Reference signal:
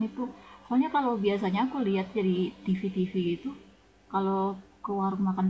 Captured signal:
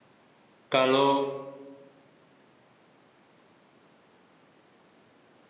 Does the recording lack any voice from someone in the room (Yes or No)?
No